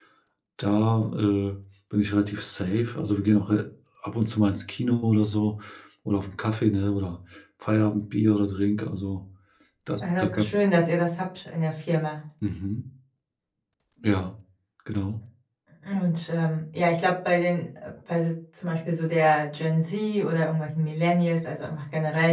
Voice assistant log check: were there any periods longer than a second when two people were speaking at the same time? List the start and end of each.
none

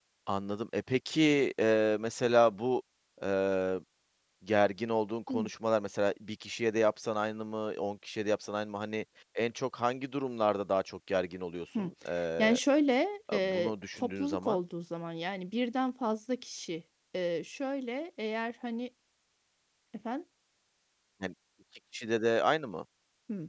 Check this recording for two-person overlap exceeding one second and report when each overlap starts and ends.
13.3-14.6

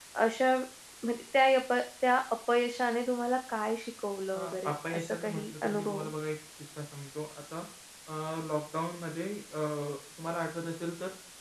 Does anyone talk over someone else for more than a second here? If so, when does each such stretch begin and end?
4.3-6.0

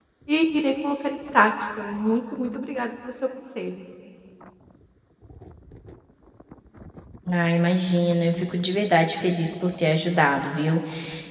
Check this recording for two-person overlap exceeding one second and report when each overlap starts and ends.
none

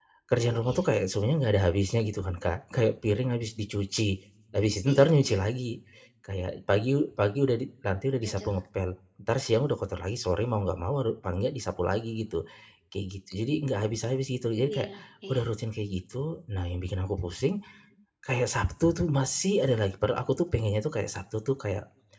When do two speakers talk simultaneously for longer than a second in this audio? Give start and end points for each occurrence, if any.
none

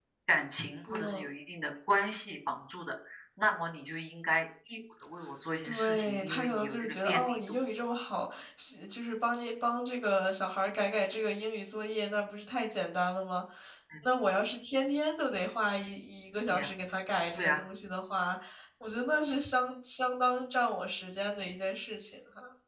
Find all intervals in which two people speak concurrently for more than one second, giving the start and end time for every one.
5.6-7.6

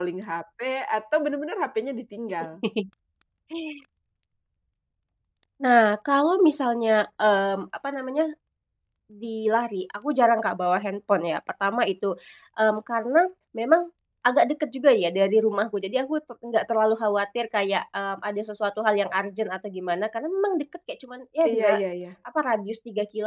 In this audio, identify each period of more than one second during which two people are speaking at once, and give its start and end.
none

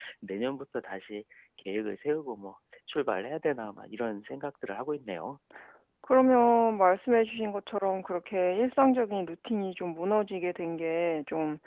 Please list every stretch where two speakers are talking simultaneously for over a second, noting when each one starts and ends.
none

